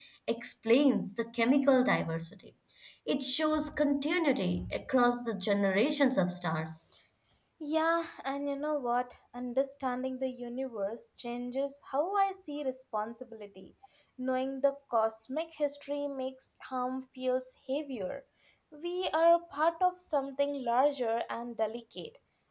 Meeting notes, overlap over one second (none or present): none